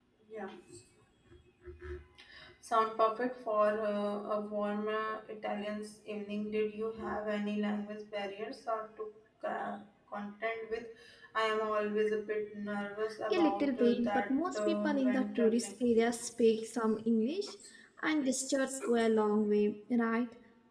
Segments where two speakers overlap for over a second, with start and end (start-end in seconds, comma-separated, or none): 13.3-15.7